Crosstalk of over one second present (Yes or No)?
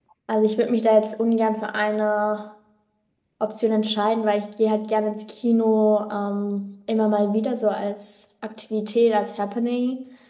No